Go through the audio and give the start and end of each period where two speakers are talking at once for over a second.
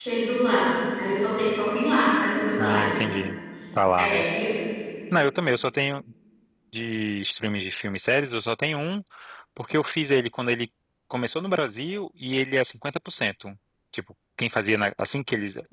none

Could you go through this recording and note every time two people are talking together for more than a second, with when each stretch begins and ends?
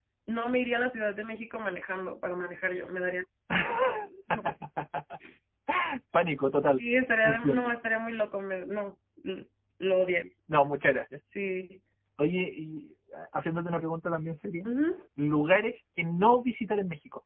none

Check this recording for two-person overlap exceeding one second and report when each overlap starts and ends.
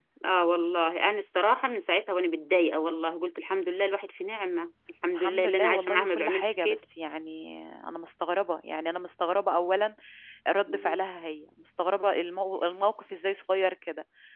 5.1-6.8

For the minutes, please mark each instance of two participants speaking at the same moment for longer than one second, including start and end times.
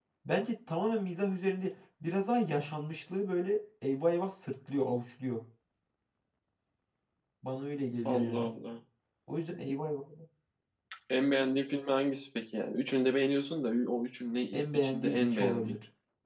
14.5-15.8

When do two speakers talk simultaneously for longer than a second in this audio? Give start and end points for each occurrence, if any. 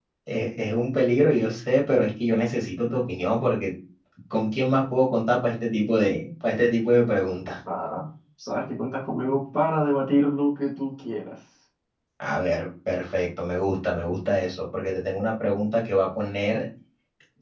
none

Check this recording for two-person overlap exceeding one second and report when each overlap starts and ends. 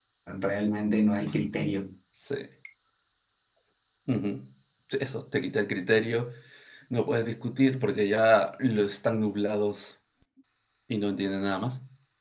none

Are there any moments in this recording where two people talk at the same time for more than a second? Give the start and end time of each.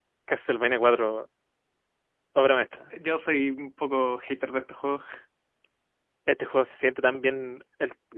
none

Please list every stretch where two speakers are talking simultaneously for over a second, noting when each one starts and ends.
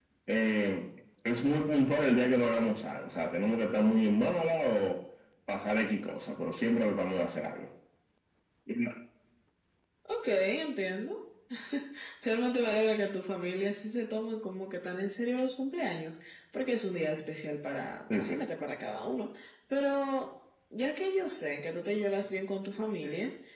none

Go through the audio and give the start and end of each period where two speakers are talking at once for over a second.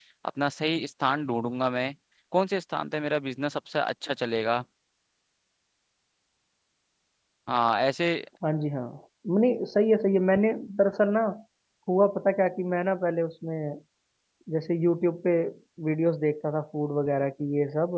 none

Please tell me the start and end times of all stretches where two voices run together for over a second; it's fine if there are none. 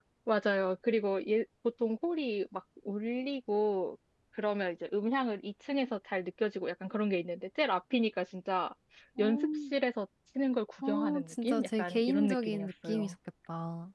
10.9-13.1

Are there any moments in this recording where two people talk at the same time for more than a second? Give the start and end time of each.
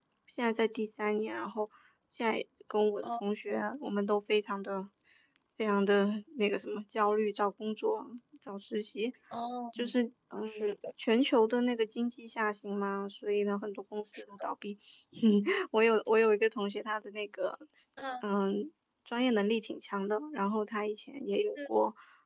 none

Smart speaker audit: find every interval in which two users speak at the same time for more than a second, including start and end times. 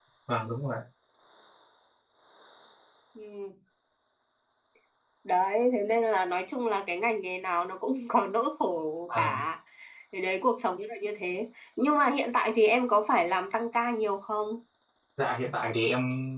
none

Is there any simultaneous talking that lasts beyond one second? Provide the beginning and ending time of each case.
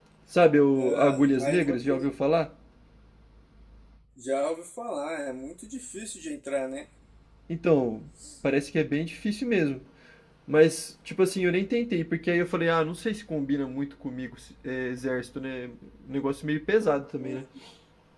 0.8-2.1

